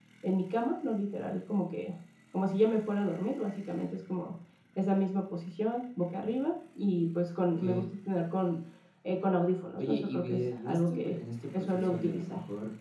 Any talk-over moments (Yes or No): Yes